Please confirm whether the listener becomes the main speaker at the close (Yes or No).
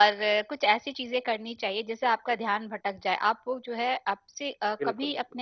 No